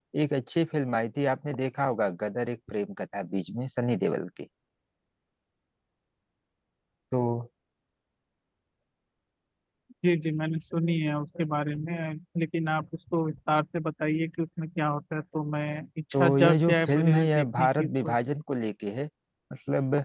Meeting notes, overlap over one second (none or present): present